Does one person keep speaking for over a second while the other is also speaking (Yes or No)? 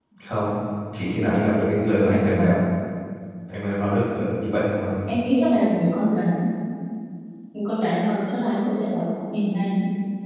No